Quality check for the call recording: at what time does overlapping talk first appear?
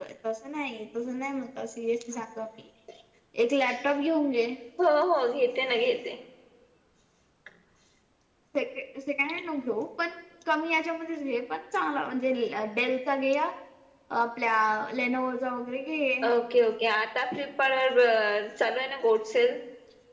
none

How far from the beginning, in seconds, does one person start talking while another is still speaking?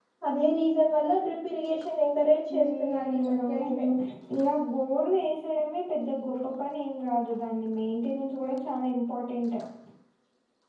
2 s

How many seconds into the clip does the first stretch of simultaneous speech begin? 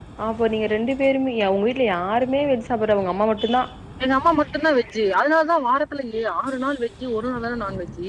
none

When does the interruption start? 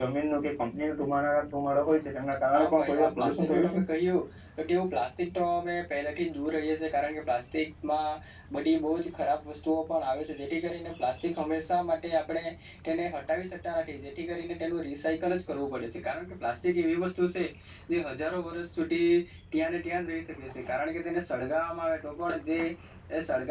3 s

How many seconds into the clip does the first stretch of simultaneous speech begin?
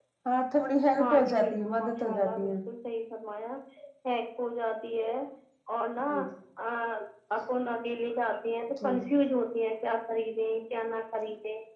1 s

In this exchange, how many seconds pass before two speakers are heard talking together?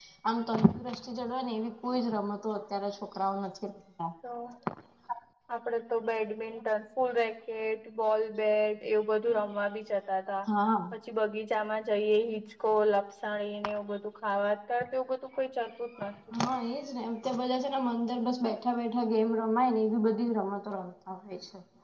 none

